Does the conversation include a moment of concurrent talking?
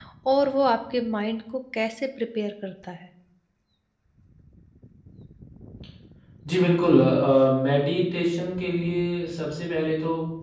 No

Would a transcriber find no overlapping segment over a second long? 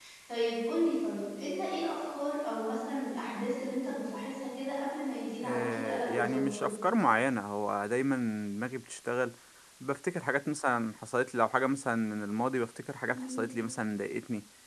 No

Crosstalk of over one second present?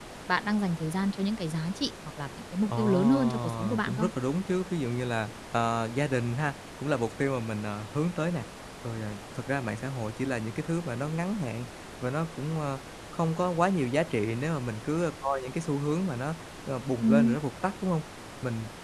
Yes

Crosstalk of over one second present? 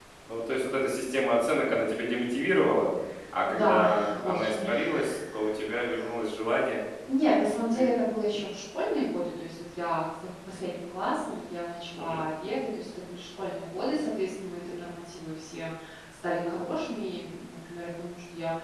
Yes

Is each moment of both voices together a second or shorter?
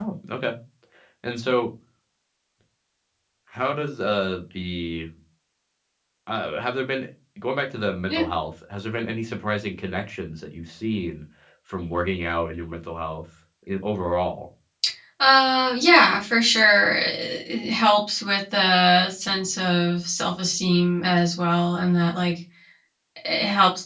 Yes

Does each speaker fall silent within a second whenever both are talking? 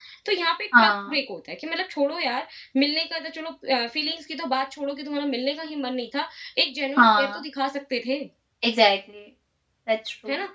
Yes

